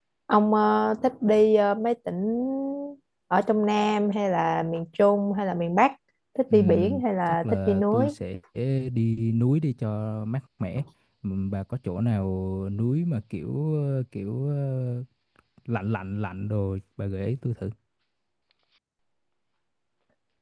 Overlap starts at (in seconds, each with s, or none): 6.5 s